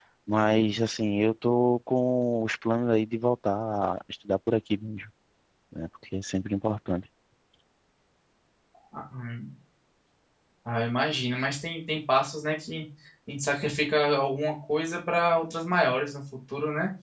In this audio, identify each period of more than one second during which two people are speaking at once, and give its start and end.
none

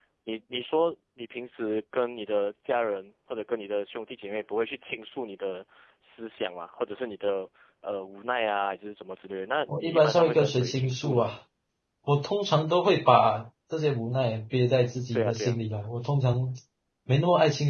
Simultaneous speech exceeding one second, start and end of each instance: 9.7-11.3

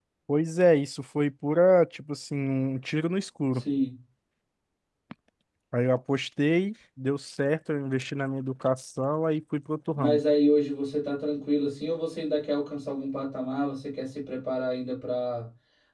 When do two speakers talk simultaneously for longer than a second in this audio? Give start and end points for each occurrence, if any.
none

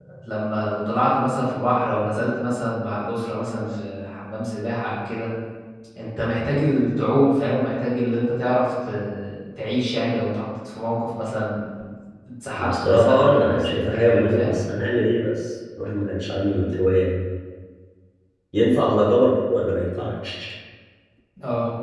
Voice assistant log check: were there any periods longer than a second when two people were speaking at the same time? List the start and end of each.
12.6-14.6

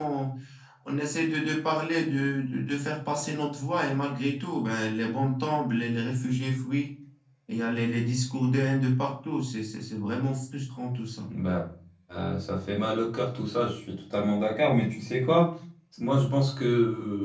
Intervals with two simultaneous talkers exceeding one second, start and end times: none

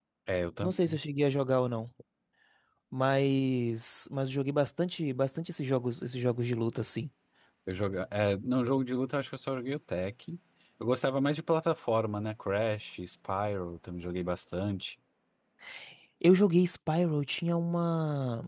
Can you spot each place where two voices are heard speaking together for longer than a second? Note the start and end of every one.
none

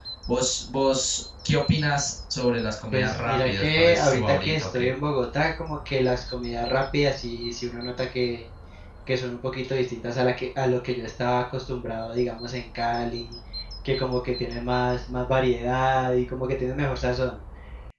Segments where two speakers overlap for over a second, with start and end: 2.9-4.7

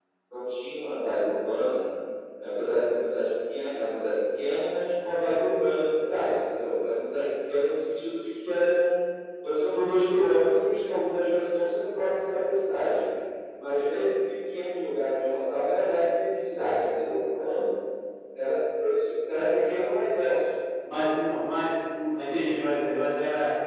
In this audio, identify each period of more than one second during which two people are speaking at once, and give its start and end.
none

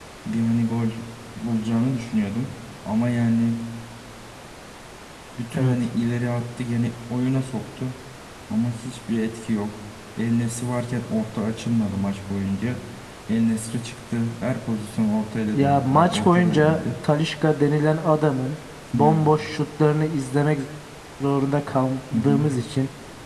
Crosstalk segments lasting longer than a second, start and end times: 15.6-16.8

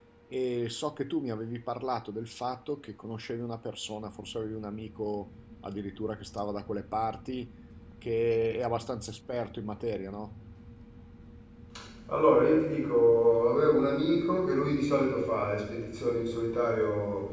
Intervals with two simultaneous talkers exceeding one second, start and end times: none

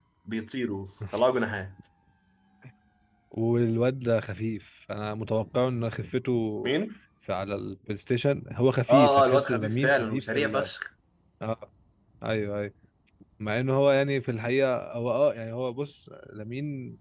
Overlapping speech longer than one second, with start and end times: 8.9-10.7

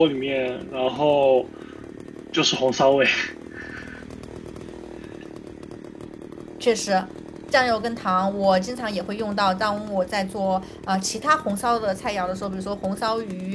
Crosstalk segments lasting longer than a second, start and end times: none

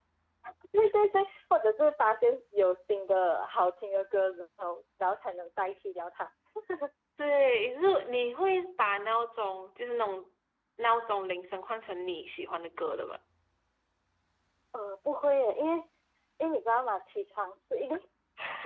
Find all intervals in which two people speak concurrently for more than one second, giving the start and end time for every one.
none

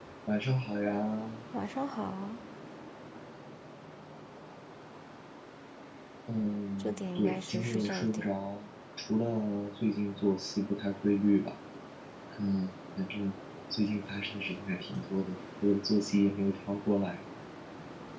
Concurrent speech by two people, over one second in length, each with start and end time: 6.8-8.3

